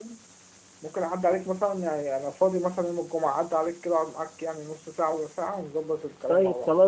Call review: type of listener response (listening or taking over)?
taking over